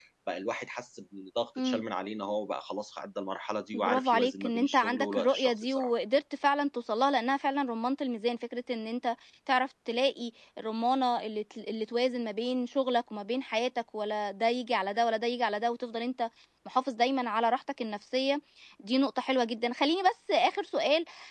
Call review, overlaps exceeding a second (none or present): present